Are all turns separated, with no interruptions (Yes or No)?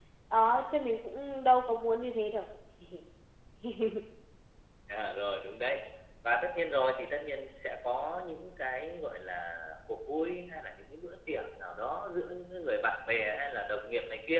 Yes